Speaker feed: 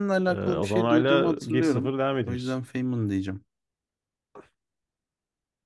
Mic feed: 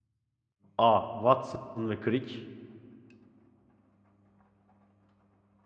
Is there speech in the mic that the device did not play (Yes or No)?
Yes